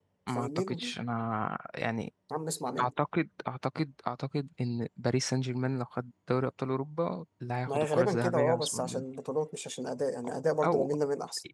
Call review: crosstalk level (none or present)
present